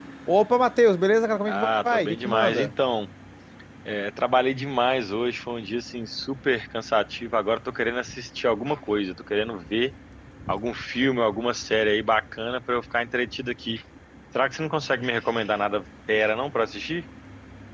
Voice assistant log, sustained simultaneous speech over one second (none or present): present